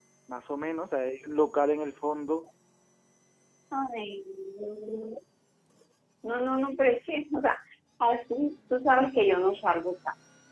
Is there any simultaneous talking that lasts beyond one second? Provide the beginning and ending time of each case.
none

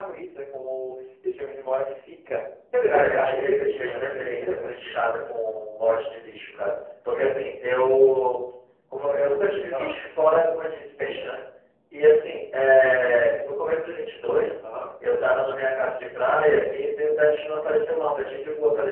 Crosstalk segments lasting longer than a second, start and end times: 2.9-4.9

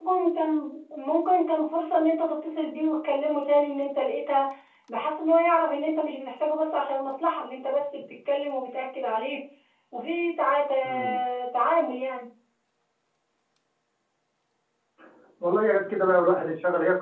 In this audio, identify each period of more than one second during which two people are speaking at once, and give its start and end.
none

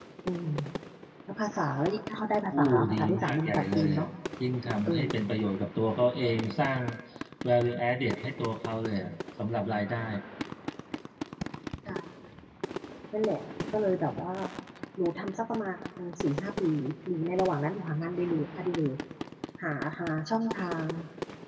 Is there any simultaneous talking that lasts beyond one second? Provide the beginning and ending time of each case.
2.6-4.0

